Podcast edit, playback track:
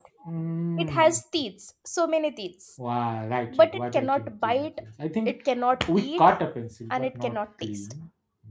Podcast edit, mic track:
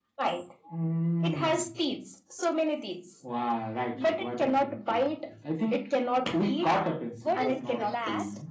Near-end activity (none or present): present